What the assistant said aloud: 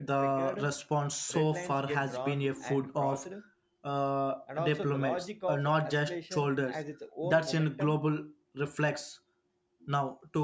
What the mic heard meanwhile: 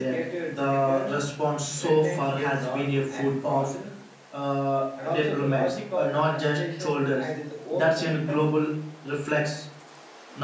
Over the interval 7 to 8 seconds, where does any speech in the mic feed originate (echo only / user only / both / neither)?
echo only